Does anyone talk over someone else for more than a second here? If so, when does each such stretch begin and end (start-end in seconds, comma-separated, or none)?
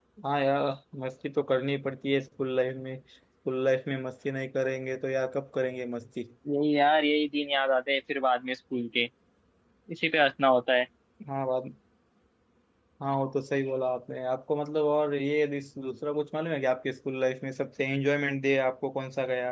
none